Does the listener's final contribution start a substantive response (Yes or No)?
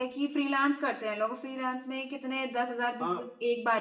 No